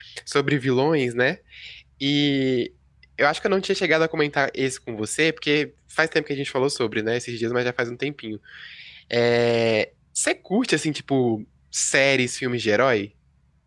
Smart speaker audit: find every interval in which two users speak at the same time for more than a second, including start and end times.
none

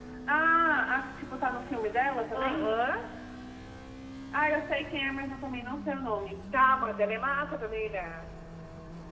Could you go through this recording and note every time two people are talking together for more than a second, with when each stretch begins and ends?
none

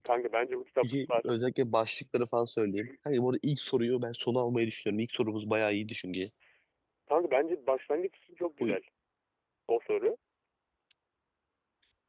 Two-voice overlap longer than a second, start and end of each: none

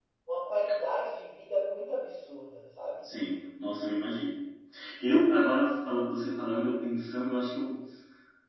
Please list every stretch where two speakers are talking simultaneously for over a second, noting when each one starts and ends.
none

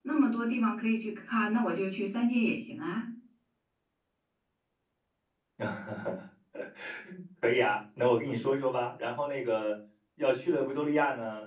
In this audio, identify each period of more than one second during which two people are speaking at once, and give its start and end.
none

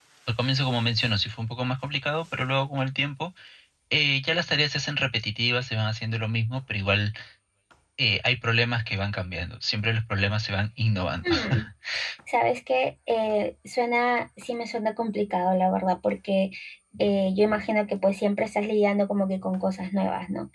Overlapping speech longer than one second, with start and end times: none

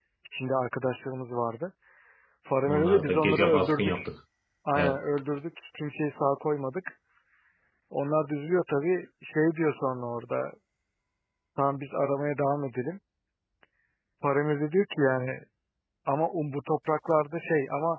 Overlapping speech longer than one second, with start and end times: 2.6-4.0

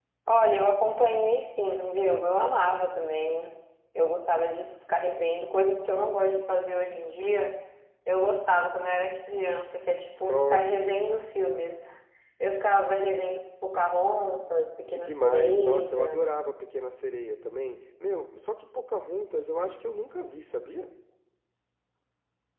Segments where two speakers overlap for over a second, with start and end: 14.9-16.3

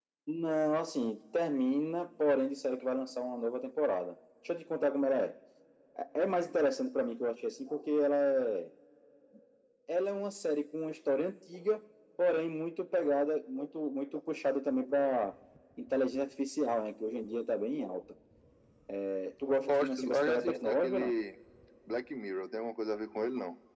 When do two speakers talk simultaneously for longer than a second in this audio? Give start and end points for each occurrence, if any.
19.7-21.1

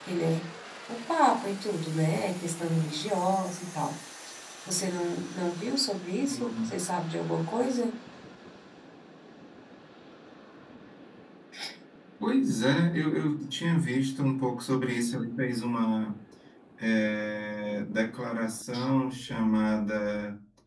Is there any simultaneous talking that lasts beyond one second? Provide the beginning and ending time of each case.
none

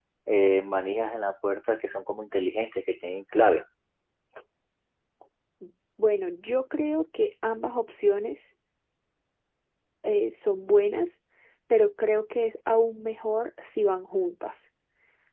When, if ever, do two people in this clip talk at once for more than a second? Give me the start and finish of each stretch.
none

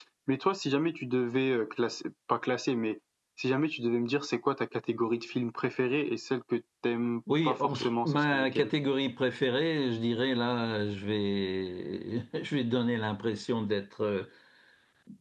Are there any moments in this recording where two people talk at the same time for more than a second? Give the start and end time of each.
7.4-8.7

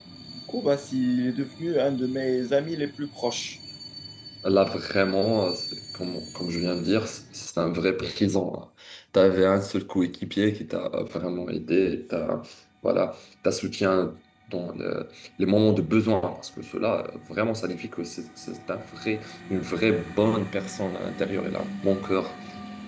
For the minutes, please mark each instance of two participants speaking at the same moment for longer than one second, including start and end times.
none

